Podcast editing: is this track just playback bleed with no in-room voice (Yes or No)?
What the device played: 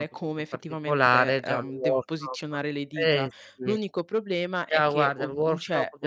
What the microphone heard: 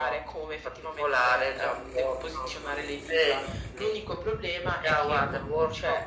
Yes